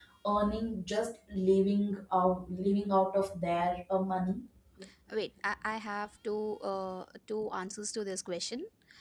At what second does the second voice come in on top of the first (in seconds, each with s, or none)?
none